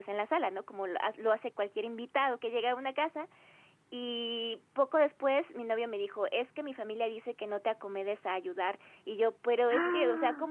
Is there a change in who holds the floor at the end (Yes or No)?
No